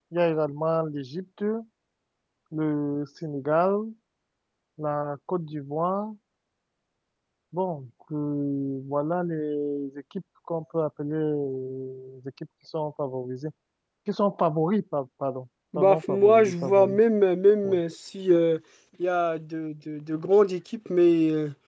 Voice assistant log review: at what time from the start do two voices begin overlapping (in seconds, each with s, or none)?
15.7 s